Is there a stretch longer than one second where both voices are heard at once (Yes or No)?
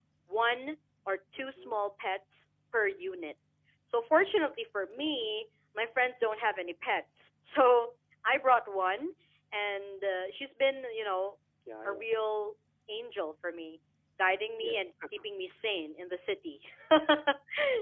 No